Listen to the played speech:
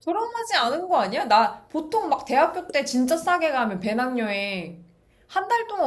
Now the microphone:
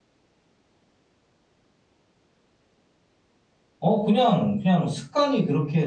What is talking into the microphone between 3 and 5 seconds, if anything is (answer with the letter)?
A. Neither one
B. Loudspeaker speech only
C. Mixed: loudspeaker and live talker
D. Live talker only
D